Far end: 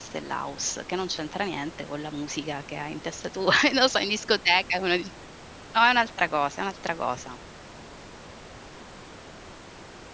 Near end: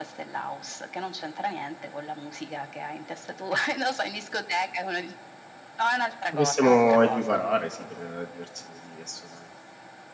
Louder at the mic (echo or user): user